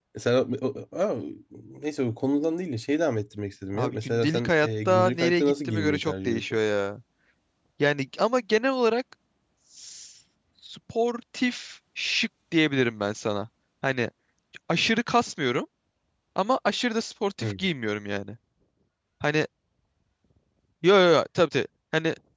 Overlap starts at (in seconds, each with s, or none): 3.7 s